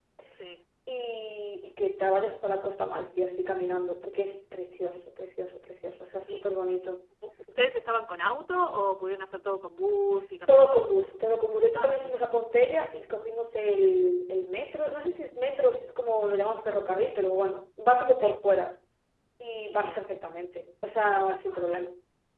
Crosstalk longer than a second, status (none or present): none